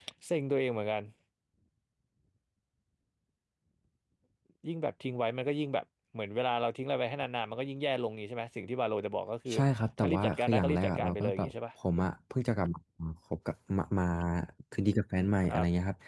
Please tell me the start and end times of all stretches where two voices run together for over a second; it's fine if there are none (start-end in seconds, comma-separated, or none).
10.0-11.5